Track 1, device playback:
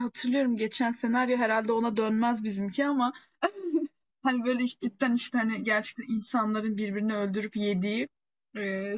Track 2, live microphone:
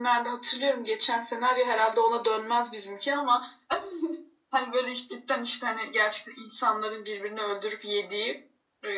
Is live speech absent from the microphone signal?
Yes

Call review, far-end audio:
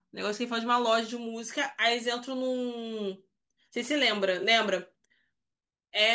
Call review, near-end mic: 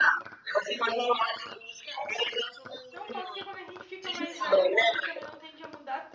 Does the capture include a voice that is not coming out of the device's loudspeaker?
Yes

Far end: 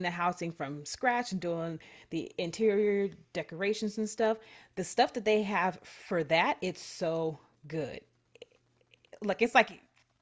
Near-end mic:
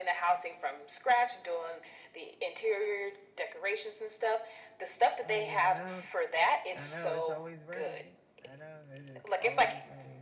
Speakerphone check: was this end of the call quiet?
No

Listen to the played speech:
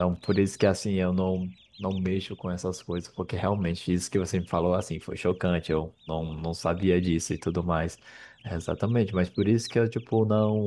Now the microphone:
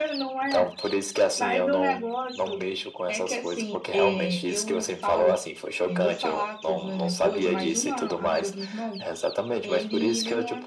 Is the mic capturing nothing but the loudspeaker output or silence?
No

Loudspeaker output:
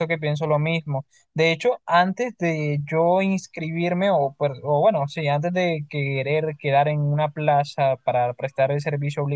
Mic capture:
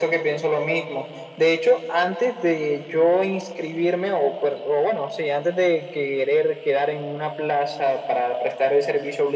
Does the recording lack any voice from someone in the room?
Yes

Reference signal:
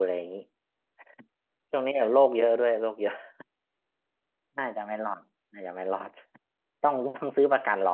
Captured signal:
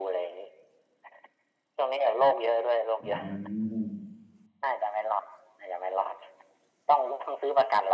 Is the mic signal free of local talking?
No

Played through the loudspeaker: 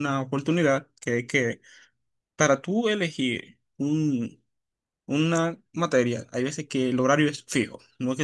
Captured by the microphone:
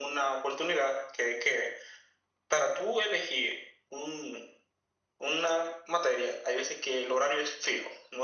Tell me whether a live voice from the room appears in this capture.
No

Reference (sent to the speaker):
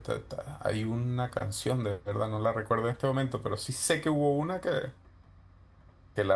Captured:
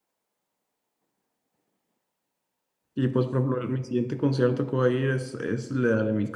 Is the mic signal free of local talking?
No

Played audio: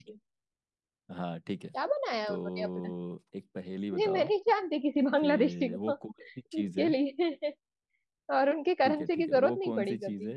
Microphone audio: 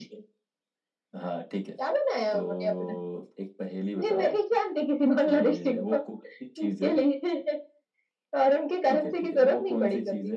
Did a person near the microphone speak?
No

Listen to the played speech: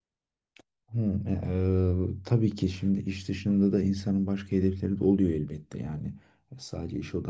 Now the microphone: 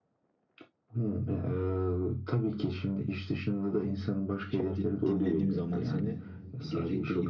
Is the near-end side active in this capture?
Yes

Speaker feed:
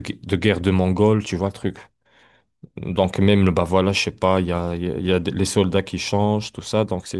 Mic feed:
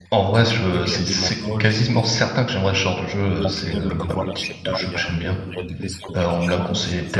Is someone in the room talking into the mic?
Yes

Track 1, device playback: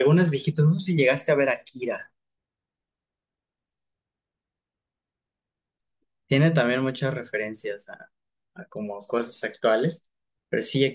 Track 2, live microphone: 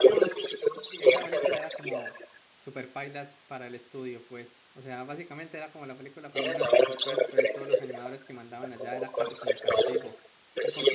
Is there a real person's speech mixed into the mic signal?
Yes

